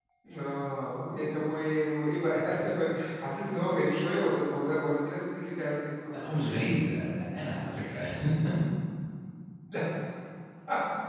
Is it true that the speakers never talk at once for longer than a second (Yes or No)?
Yes